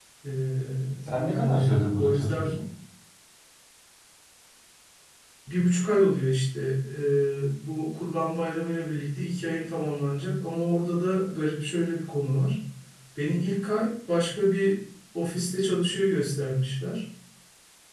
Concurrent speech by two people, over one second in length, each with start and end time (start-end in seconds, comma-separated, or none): 1.2-2.6